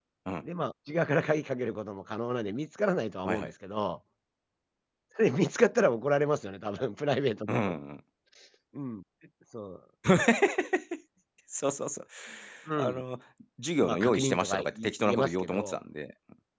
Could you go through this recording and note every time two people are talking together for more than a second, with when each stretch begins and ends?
13.8-15.8

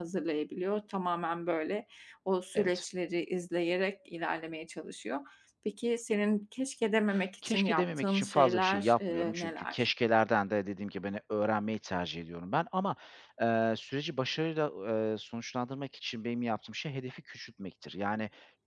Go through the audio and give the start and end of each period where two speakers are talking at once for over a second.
7.5-9.8

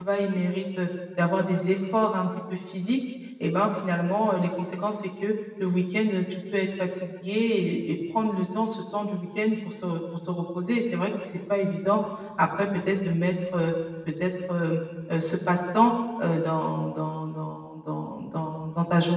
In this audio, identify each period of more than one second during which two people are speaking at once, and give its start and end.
none

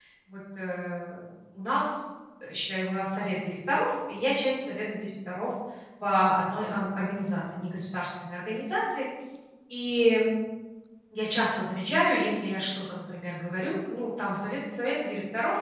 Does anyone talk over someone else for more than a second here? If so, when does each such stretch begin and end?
none

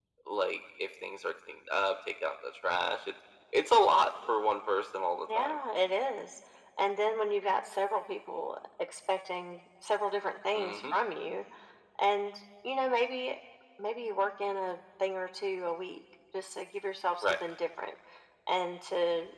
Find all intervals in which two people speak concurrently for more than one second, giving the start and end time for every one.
none

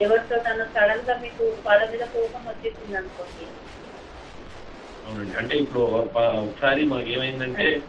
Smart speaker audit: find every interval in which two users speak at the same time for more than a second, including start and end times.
none

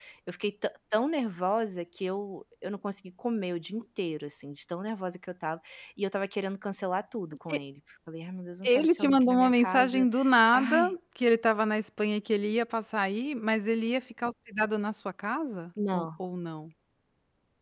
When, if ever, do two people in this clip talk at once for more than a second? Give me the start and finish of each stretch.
8.6-10.1

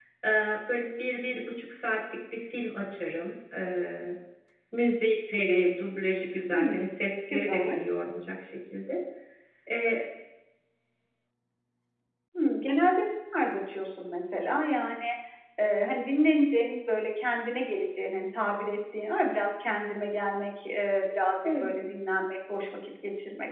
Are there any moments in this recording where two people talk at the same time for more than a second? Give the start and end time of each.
none

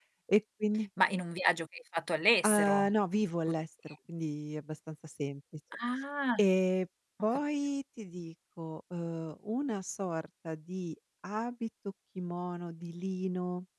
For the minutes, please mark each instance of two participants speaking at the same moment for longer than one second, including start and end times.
none

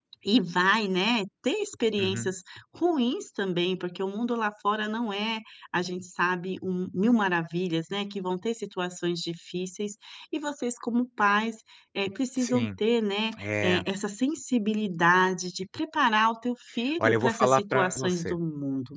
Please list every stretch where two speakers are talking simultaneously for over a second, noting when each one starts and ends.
17.0-18.4

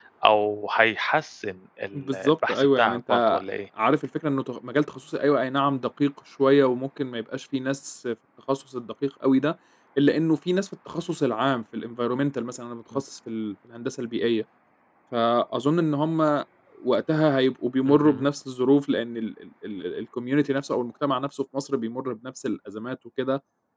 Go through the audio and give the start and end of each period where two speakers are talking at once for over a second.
1.9-3.4

